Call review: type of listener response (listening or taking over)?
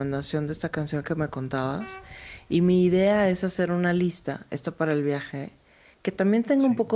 listening